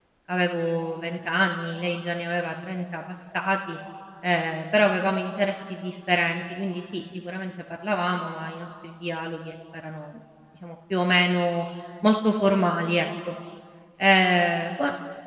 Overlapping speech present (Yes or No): No